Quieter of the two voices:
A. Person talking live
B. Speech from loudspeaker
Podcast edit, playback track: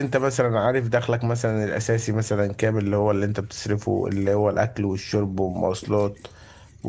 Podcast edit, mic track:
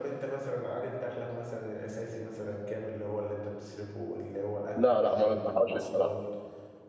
B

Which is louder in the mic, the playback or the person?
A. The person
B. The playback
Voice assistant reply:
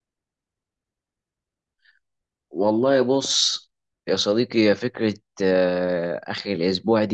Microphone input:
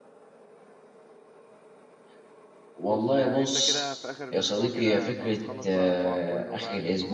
B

